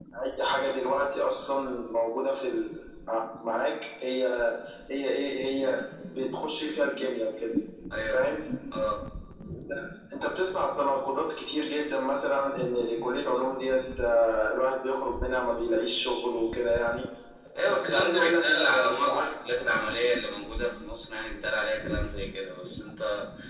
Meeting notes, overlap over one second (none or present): present